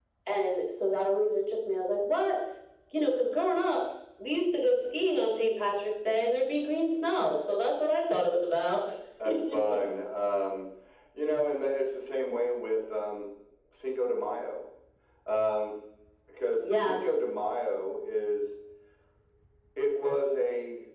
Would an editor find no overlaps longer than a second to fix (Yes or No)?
Yes